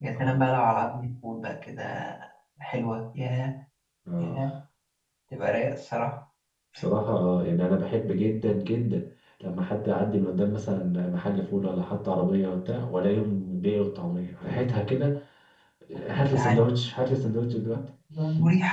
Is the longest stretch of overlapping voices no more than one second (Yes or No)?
Yes